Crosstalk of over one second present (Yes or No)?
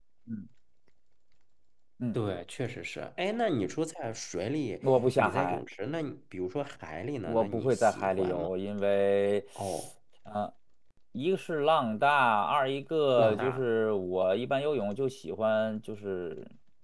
Yes